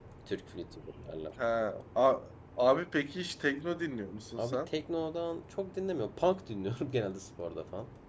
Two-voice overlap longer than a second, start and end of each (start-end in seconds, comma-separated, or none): none